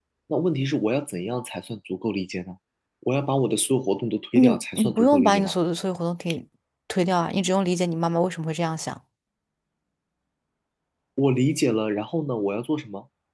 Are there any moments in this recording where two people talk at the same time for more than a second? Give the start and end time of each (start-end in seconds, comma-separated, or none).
4.3-5.5